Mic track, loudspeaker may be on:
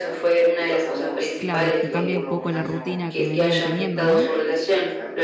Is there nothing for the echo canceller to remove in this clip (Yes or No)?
No